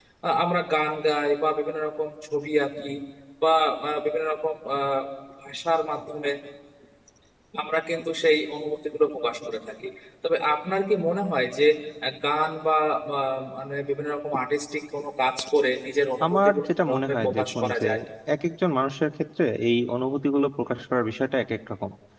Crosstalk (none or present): present